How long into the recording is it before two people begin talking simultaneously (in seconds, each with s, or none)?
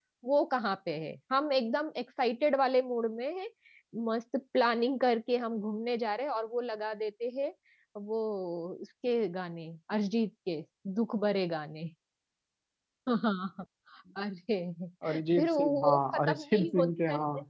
15.0 s